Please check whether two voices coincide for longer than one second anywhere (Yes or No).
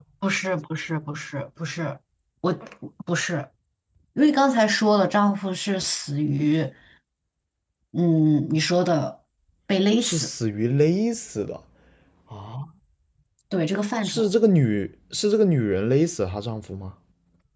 No